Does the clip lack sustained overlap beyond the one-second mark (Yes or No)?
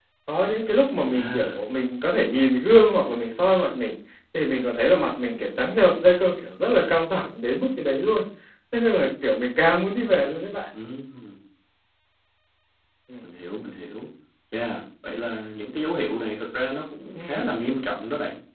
Yes